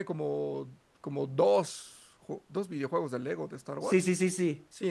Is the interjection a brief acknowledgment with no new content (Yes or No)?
No